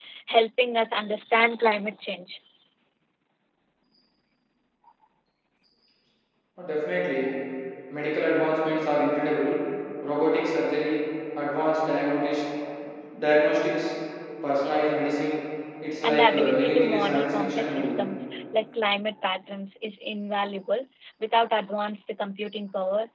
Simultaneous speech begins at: 16.0 s

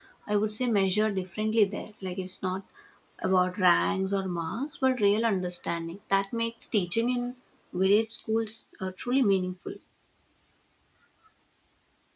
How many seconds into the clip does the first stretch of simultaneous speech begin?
none

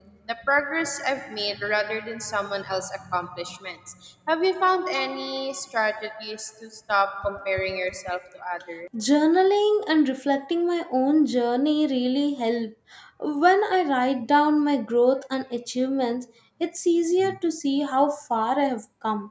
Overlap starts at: none

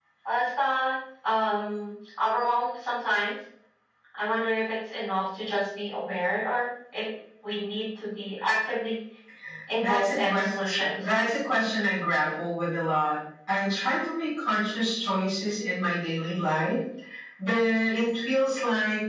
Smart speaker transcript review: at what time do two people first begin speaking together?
9.8 s

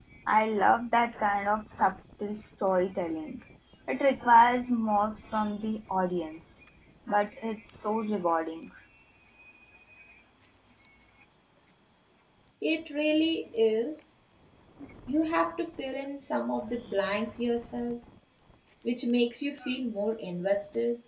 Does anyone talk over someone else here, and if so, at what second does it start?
none

